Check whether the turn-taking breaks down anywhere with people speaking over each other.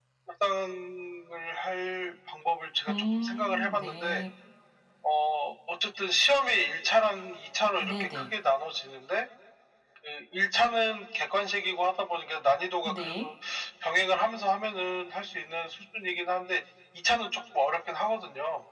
Yes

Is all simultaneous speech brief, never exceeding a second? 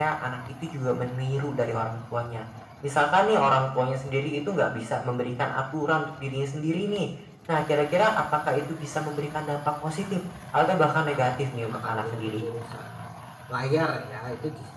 No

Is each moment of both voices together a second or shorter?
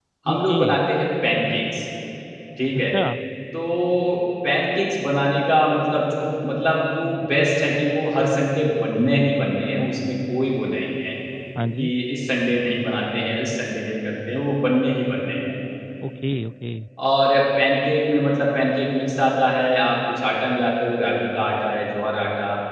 Yes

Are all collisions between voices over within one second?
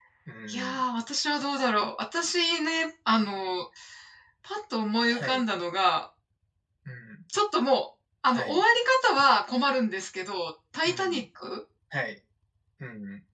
Yes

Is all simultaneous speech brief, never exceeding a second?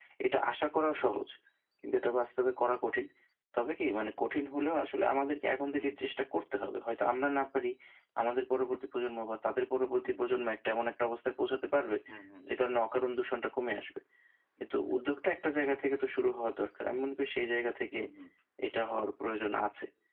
Yes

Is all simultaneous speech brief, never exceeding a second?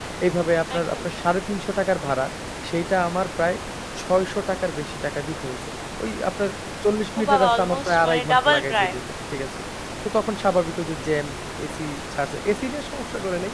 No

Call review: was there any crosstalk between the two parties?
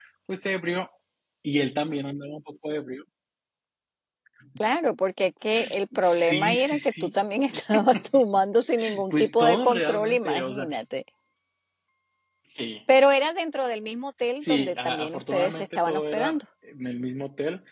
Yes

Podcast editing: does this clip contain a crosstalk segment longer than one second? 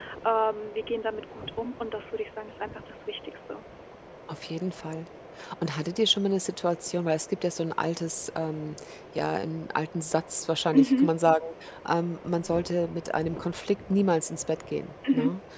No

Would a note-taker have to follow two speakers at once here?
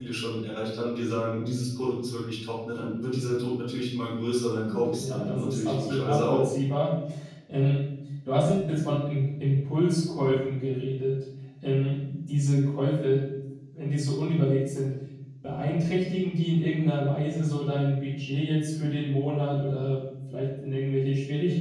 Yes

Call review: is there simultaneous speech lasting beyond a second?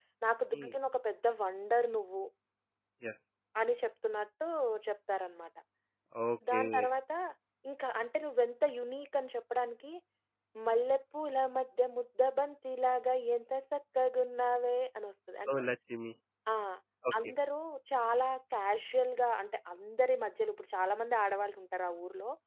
No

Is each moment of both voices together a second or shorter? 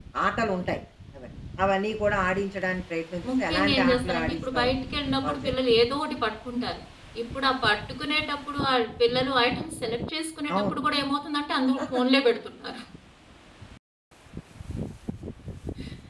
No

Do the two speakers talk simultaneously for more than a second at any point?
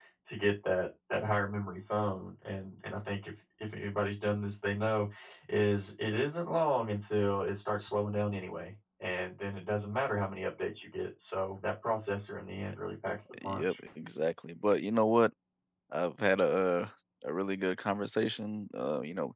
No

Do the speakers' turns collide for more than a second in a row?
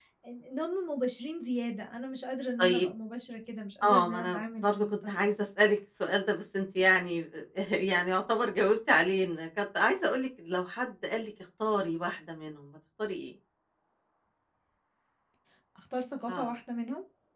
Yes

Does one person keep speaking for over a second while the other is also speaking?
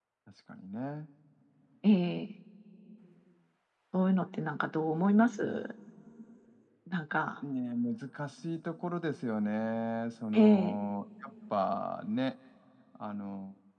No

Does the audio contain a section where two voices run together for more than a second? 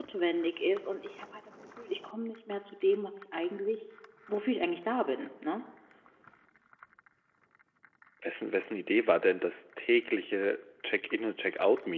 No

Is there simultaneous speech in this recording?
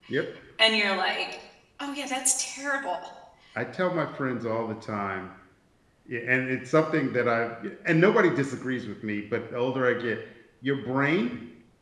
No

